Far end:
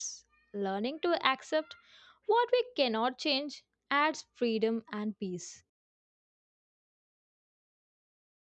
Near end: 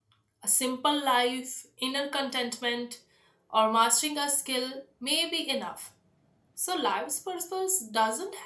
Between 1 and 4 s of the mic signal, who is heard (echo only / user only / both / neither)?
user only